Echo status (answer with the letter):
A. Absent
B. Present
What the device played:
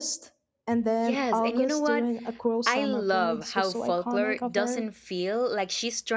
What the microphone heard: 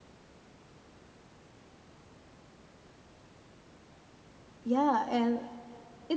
A